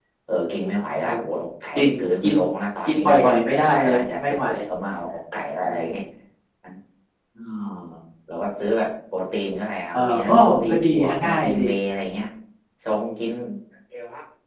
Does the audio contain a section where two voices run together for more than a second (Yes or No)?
Yes